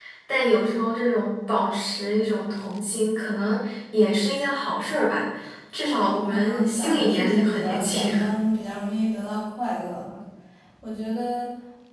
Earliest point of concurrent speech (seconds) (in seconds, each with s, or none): 5.9 s